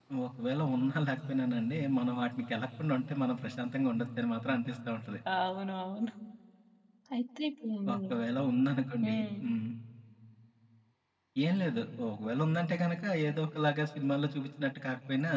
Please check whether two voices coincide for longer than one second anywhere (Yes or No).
No